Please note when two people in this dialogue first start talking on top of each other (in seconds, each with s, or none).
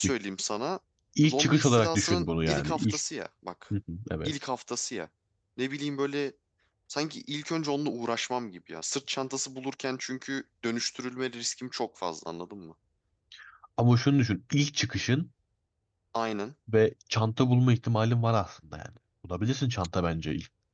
1.2 s